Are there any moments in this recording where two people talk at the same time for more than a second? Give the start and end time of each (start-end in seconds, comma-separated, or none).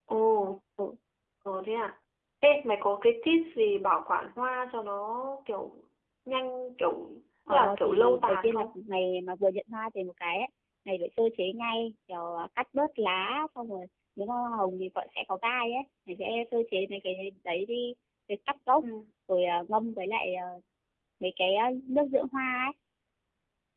7.5-8.8